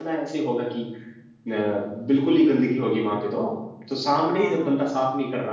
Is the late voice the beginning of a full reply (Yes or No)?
No